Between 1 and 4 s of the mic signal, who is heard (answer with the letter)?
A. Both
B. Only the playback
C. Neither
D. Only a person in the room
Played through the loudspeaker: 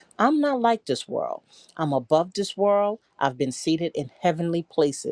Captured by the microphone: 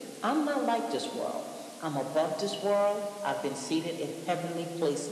B